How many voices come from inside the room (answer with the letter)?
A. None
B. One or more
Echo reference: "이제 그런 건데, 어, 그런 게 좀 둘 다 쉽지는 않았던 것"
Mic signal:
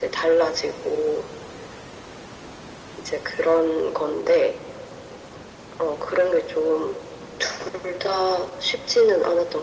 A